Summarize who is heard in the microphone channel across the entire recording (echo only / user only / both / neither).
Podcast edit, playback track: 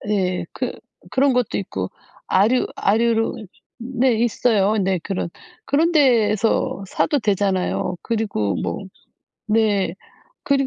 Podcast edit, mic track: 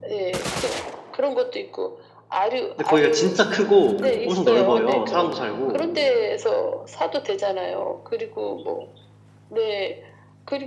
both